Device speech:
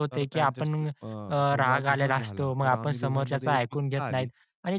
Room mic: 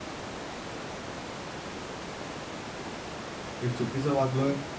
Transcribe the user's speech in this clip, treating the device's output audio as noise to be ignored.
मी चुकीचं वागलोय?

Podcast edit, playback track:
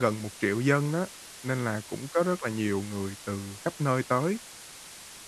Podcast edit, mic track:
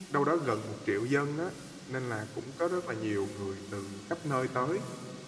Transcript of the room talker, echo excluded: none

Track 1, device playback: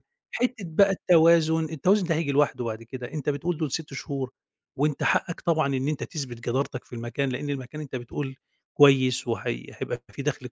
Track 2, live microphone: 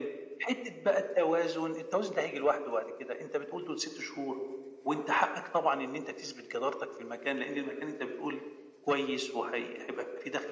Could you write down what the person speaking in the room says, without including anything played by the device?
none

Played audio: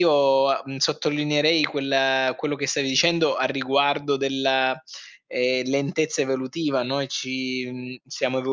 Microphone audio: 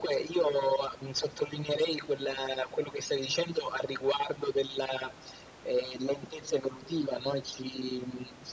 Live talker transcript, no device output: none

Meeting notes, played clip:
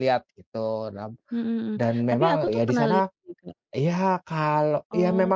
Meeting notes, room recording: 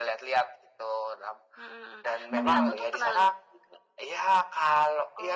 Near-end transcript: Mmm.

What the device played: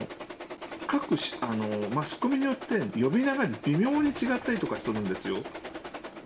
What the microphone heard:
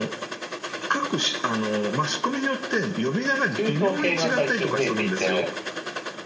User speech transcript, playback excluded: 中東系が最近増えていて。

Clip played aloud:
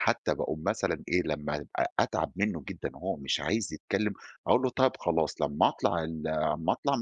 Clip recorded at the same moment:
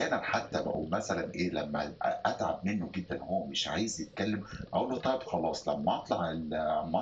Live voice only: none

